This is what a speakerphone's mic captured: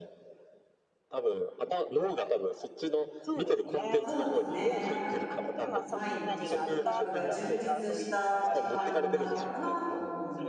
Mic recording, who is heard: both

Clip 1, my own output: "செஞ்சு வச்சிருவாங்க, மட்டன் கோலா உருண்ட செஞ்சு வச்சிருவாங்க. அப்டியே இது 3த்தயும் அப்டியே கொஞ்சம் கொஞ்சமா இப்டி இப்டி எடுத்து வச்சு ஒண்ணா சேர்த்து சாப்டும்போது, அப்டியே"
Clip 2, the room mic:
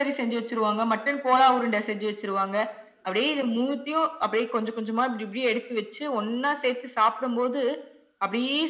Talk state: echo only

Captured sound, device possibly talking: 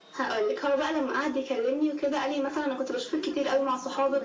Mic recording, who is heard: both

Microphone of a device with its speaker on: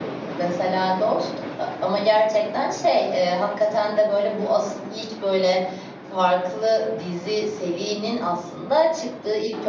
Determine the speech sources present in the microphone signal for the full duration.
user only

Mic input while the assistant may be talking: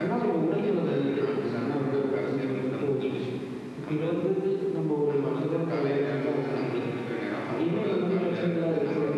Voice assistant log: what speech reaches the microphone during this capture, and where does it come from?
echo only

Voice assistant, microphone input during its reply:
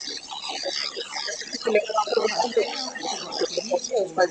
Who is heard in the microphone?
both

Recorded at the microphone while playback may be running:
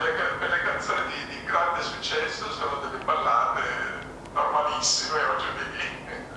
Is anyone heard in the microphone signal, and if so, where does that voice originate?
echo only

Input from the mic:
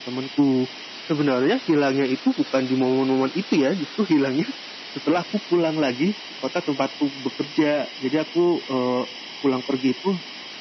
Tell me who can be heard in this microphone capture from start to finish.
echo only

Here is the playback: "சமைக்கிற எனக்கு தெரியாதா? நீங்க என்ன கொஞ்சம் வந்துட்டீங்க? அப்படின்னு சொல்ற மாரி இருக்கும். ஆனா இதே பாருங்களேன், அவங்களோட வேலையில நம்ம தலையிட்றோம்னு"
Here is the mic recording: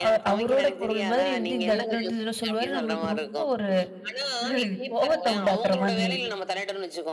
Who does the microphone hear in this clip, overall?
both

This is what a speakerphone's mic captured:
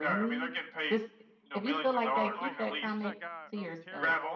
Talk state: both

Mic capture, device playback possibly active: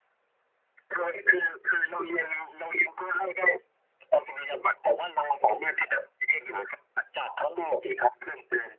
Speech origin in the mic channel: echo only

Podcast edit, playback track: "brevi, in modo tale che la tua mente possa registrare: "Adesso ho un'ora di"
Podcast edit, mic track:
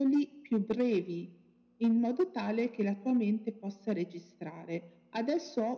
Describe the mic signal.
echo only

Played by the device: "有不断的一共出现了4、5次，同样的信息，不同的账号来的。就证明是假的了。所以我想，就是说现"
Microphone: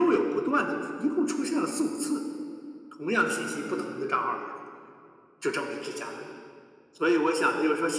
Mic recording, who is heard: echo only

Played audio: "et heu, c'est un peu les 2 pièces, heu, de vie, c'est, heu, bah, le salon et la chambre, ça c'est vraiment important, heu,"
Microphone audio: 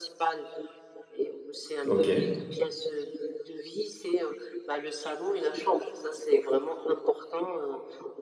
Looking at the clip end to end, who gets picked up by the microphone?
both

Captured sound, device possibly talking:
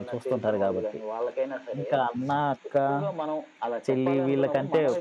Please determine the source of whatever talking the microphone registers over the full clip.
both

